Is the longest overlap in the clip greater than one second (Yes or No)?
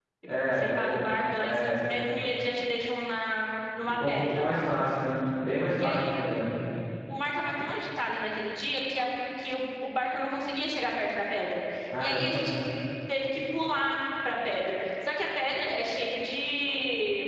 Yes